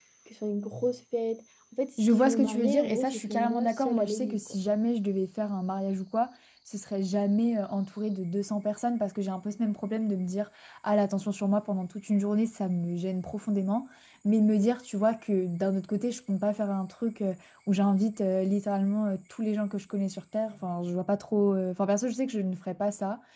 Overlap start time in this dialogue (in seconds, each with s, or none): 2.0 s